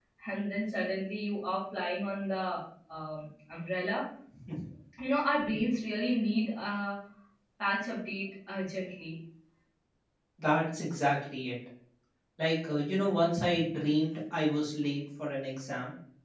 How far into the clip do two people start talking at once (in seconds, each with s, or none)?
none